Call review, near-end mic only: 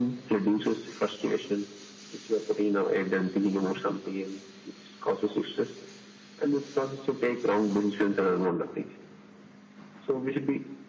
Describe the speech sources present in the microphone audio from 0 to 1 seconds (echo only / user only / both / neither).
echo only